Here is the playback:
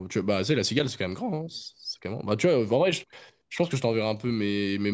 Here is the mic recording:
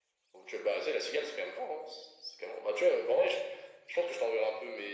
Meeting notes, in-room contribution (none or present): none